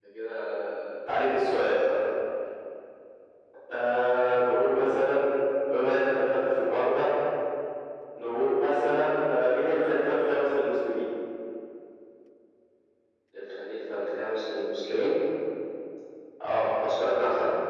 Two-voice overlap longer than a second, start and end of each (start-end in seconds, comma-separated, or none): none